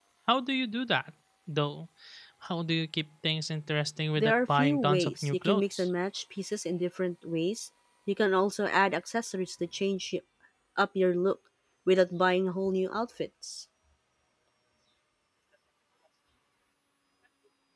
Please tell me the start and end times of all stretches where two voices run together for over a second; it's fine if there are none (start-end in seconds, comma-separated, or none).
4.2-5.9